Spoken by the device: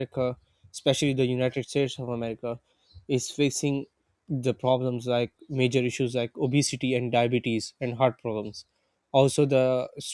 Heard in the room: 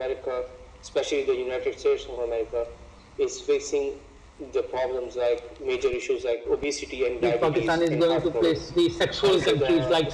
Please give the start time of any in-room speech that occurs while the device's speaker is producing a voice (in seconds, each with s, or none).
7.2 s